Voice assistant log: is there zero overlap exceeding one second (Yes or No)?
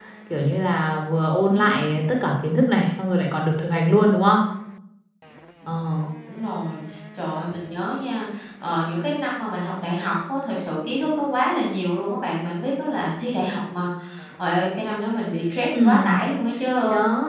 Yes